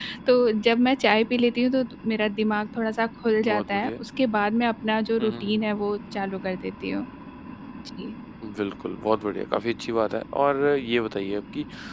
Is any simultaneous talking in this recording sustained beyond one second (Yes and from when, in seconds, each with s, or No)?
No